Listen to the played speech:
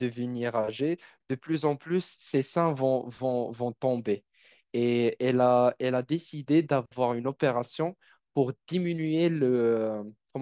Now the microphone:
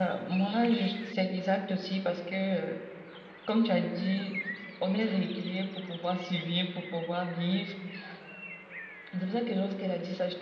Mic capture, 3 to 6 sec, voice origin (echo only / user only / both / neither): user only